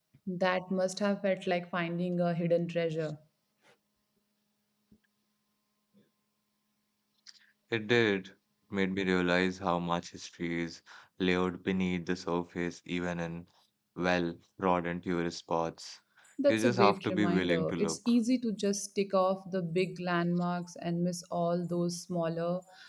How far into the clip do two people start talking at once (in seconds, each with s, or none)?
16.5 s